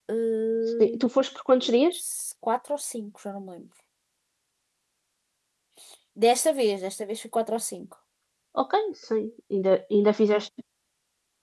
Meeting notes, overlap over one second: none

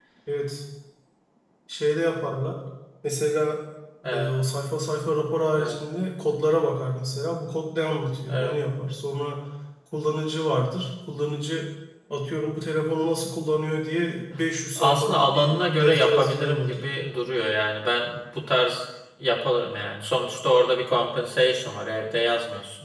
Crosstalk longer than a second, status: present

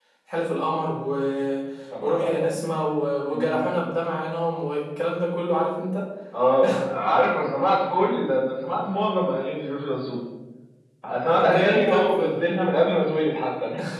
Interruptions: present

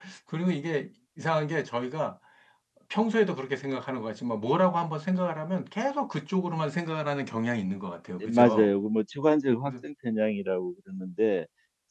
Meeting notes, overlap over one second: none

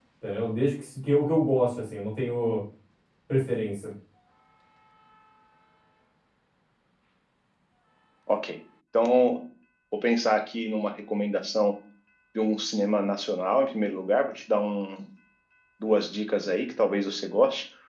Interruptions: none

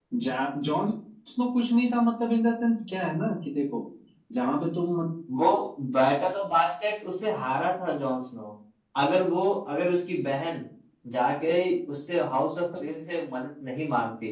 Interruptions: none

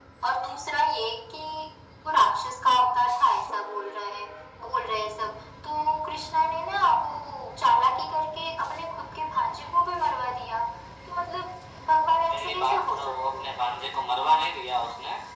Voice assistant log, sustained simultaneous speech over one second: present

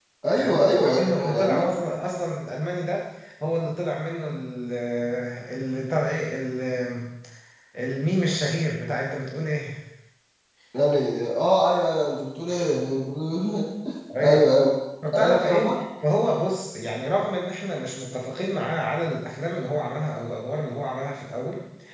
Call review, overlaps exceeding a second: present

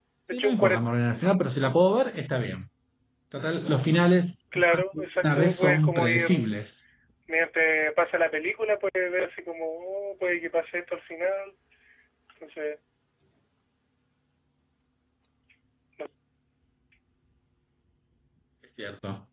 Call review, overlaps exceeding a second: present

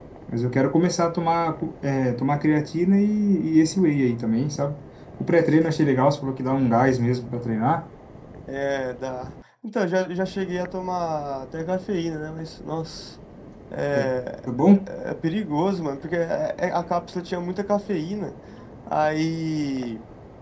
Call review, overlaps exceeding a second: none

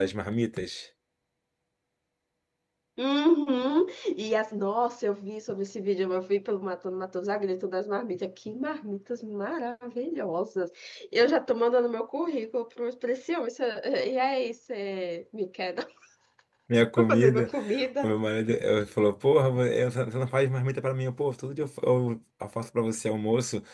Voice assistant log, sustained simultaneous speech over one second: none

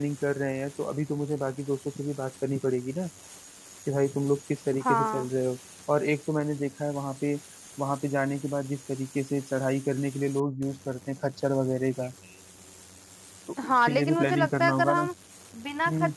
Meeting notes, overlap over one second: present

